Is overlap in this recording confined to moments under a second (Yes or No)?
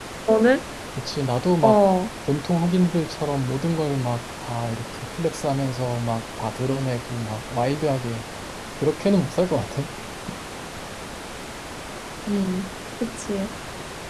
Yes